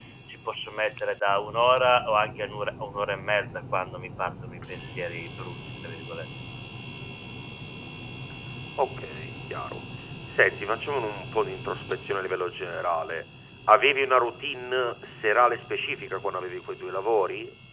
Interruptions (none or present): none